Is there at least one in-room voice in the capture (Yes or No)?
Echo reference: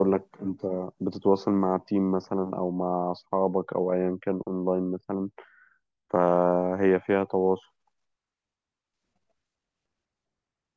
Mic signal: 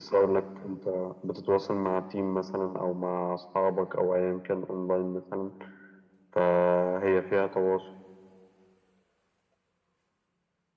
No